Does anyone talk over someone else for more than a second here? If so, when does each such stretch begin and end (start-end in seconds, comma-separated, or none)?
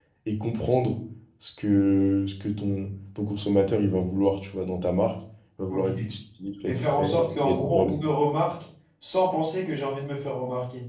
6.7-8.0